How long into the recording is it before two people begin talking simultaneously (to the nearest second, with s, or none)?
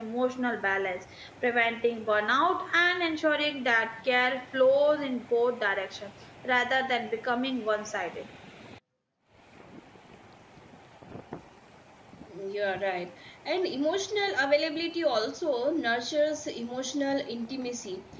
none